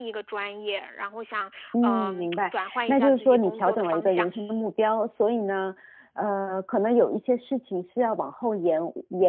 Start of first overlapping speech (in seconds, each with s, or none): 1.7 s